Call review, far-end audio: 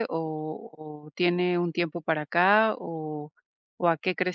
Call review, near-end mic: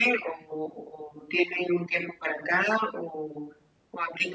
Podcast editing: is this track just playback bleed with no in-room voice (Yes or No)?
Yes